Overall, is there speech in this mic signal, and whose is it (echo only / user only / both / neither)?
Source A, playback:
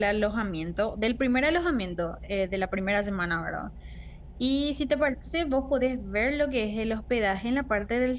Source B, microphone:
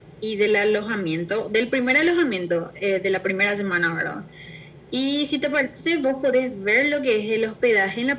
echo only